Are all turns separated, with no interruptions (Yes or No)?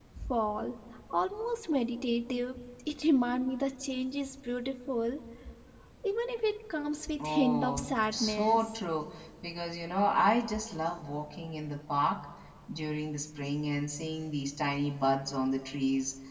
No